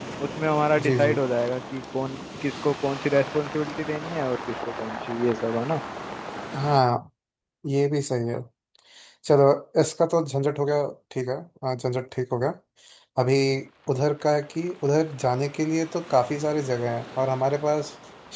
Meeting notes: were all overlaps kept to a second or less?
Yes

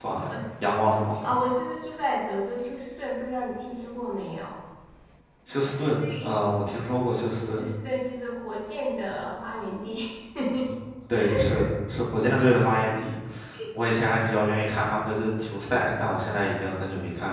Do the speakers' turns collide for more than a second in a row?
No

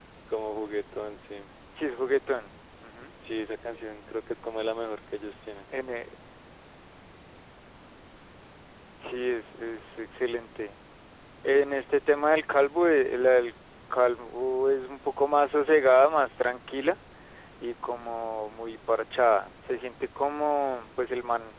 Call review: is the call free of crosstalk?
Yes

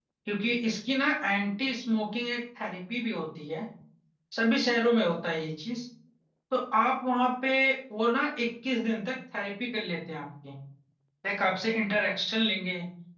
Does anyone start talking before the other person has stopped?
No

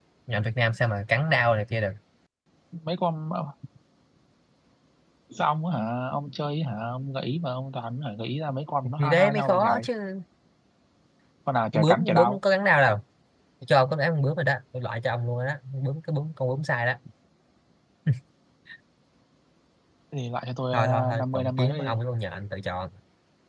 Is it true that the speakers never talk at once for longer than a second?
No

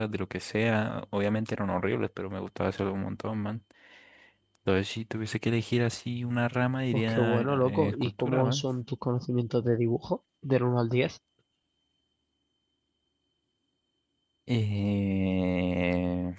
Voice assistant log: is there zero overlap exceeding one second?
No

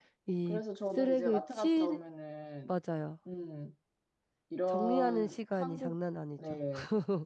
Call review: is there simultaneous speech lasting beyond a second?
Yes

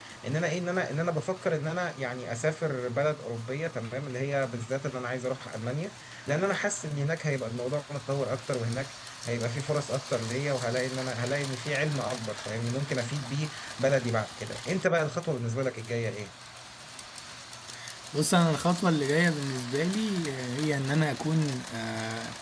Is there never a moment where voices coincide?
Yes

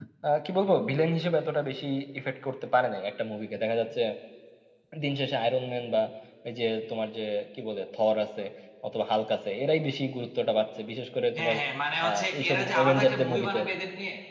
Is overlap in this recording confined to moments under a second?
No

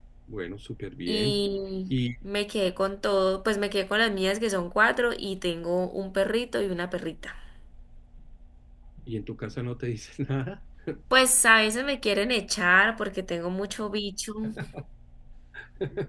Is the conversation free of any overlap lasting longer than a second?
Yes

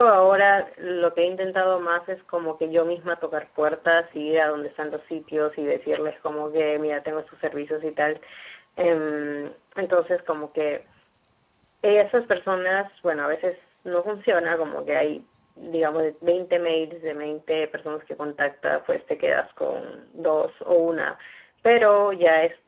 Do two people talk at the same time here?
No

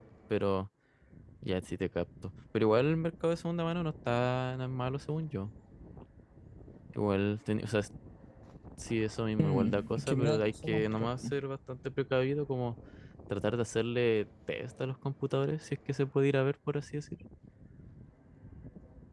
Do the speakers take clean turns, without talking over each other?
No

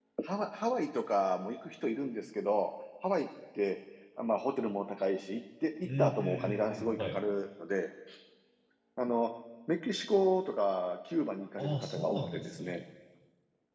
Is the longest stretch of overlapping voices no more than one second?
No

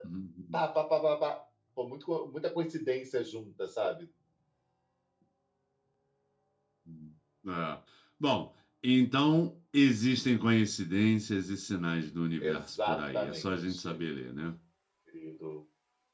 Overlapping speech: Yes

